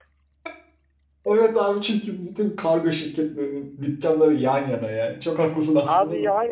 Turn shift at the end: Yes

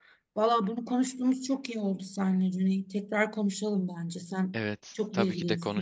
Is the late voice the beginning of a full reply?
Yes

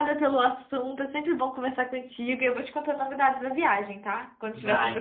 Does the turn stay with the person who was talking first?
No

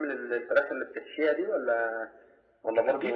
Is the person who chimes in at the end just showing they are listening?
No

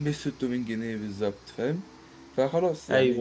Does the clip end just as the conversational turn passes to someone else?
Yes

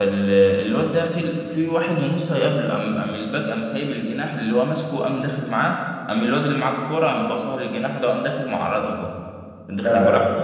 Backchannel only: Yes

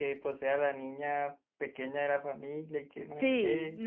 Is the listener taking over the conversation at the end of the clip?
Yes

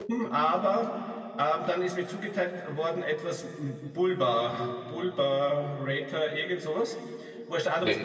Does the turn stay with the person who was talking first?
Yes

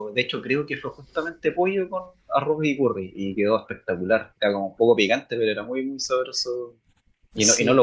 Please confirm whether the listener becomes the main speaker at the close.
No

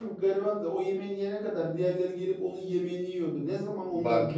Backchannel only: Yes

